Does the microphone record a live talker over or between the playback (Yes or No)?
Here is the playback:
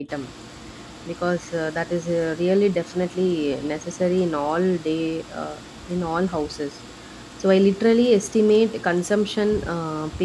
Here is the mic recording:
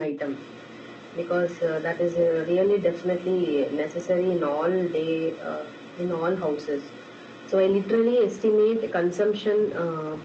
No